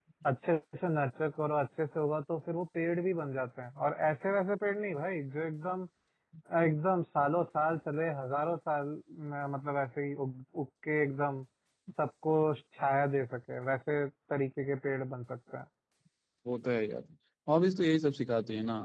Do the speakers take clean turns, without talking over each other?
Yes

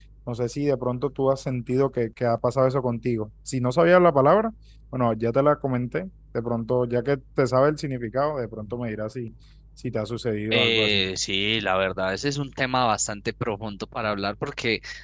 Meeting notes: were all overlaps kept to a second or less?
Yes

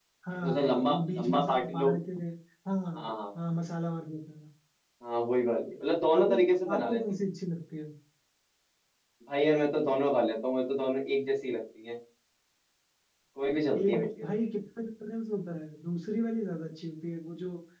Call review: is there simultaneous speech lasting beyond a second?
Yes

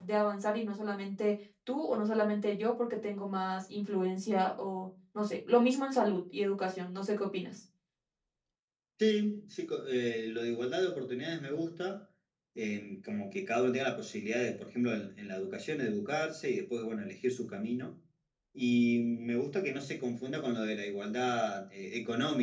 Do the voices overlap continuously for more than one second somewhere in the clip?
No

